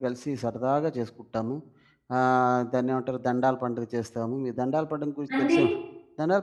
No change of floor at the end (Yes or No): Yes